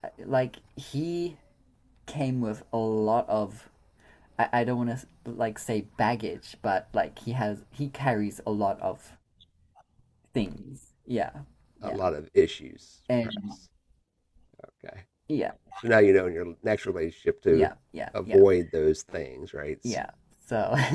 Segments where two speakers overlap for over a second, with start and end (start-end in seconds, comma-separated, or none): none